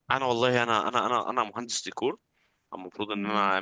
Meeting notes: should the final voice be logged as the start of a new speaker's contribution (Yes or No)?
No